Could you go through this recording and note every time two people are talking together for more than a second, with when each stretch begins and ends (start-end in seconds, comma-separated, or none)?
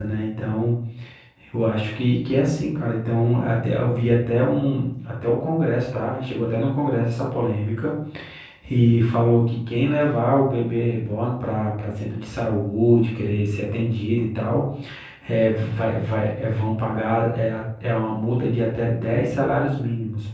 none